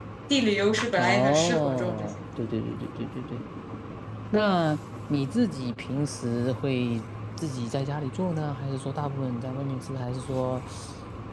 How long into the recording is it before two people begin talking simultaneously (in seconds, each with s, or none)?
1.0 s